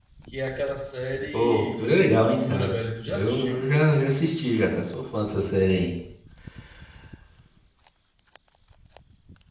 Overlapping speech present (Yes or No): Yes